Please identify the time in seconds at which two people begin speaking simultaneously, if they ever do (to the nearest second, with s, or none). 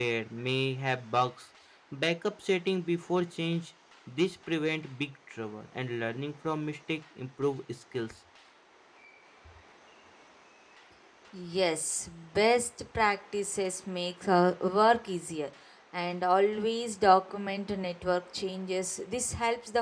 none